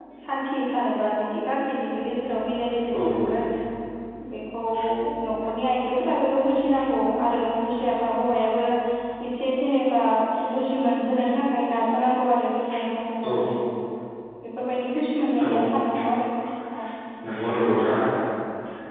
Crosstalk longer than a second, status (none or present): none